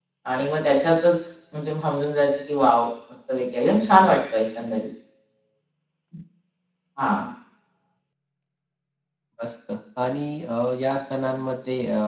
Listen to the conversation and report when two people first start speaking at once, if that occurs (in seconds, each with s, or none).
none